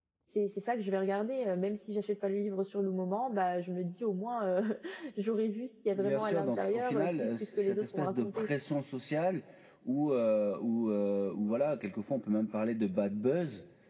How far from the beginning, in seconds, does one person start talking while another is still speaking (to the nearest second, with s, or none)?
6 s